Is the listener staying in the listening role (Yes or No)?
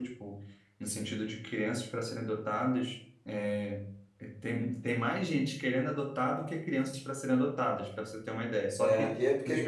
No